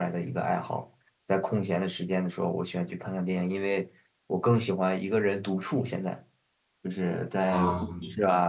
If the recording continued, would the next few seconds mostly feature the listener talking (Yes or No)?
No